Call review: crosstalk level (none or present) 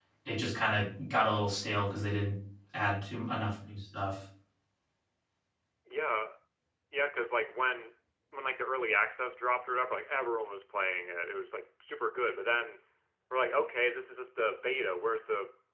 none